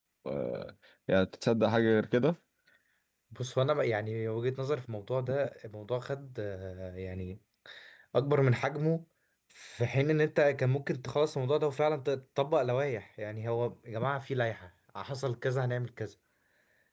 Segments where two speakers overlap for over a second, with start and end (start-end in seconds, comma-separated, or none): none